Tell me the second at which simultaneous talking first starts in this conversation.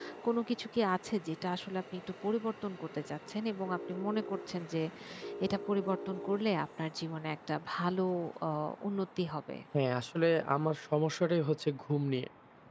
none

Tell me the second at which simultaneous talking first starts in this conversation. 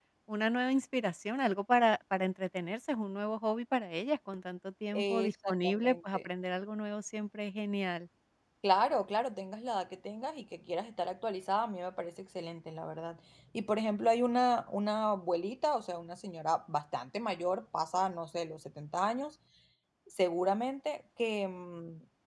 4.9 s

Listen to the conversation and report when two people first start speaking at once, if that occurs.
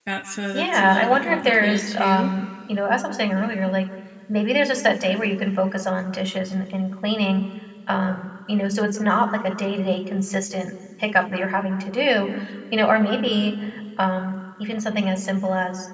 0.5 s

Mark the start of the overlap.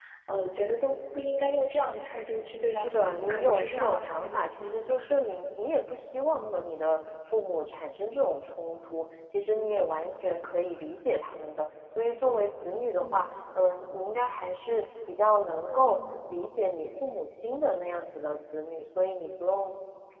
2.7 s

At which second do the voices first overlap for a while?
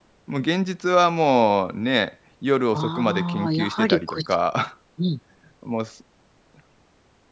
2.7 s

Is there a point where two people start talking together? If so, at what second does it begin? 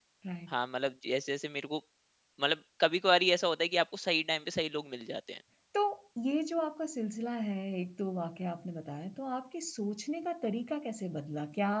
none

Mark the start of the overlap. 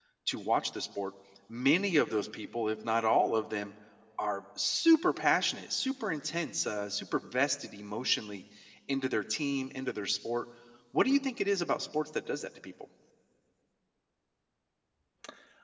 none

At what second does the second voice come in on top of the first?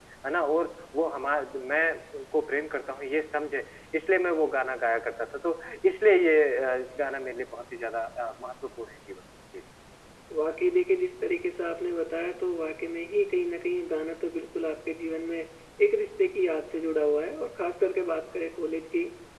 none

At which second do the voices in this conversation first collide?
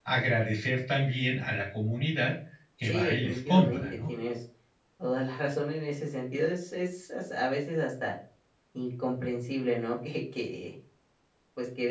2.8 s

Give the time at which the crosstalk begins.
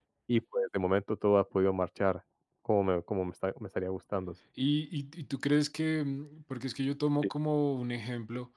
none

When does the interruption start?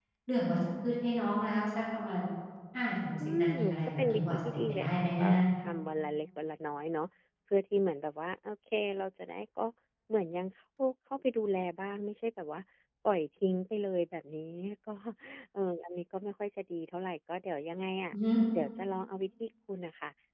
3.4 s

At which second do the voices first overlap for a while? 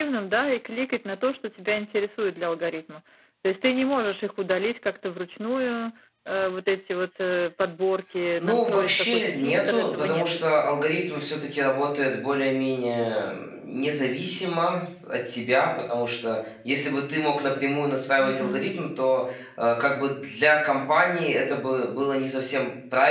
8.3 s

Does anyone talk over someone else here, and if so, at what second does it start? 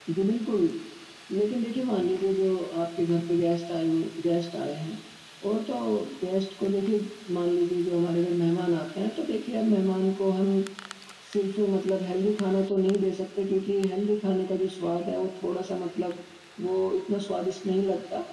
none

